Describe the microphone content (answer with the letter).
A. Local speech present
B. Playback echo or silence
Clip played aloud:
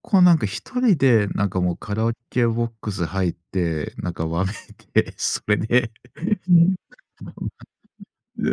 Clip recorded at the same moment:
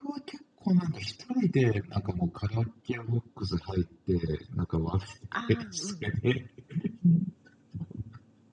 A